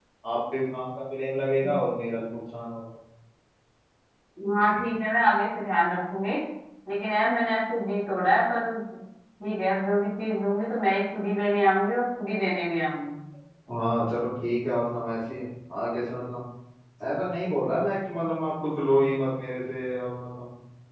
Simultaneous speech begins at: none

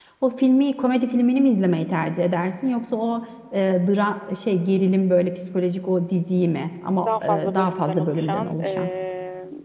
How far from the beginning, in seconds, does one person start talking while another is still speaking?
7.0 s

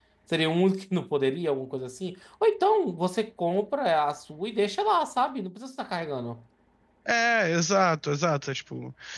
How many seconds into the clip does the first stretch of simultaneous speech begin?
none

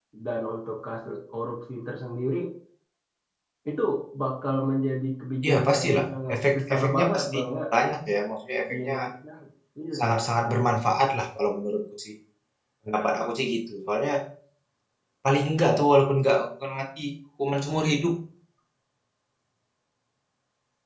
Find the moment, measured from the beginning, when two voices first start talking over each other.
5.4 s

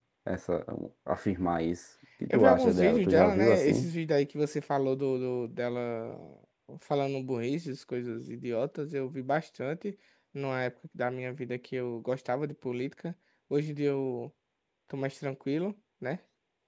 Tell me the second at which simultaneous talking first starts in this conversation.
2.3 s

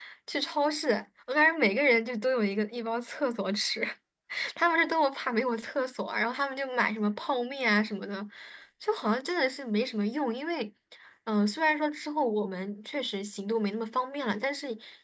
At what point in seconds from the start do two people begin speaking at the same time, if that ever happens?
none

